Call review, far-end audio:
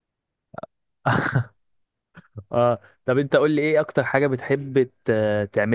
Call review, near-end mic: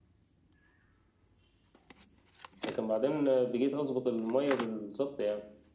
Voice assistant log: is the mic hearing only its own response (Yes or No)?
No